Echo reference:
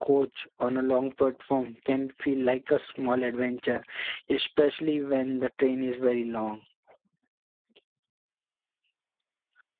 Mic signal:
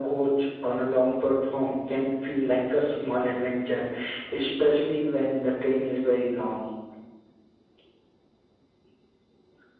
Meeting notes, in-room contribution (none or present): none